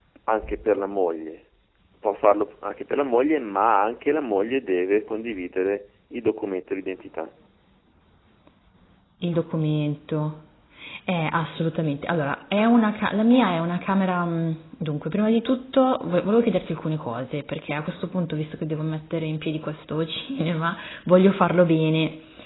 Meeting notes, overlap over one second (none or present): none